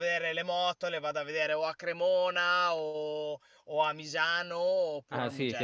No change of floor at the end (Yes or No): No